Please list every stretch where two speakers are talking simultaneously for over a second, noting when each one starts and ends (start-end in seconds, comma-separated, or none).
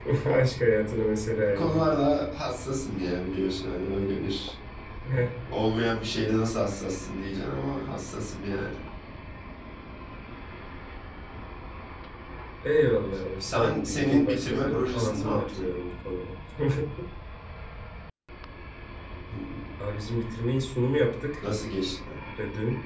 13.4-15.7